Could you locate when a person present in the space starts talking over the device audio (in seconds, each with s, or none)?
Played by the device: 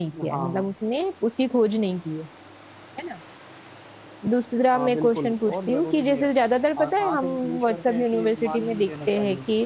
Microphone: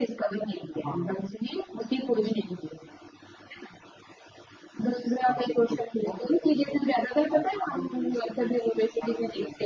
none